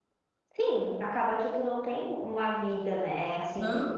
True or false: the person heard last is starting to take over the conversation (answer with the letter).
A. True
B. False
B